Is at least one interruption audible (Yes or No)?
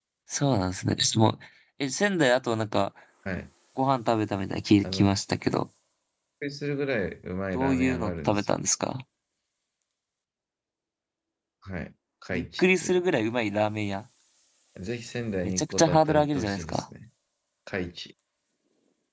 Yes